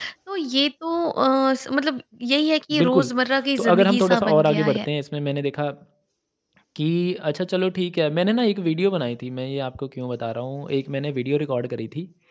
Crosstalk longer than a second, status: present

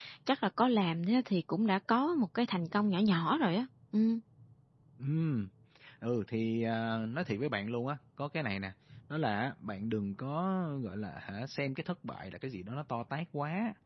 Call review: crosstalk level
none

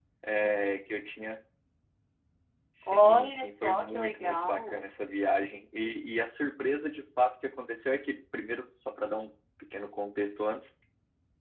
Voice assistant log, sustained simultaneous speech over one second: present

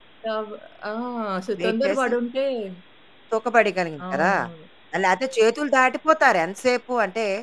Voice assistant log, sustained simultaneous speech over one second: none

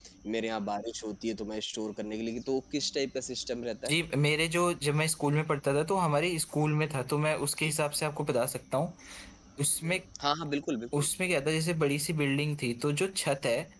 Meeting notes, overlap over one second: none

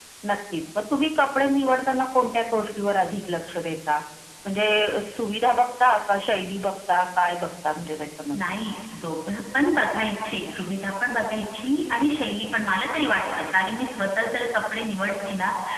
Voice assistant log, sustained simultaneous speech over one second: none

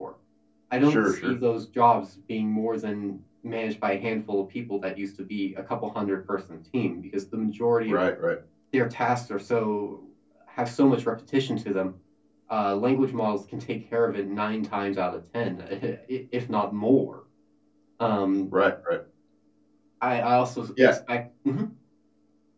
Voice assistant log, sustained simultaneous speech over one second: none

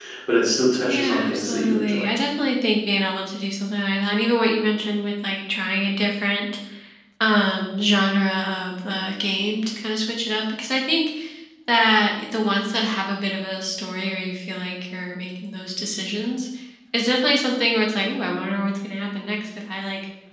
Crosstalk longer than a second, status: present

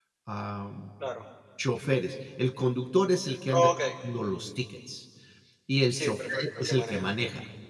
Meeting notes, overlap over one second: present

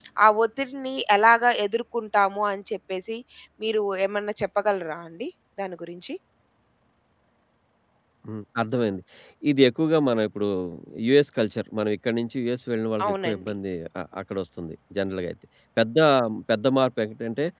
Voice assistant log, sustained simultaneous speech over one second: none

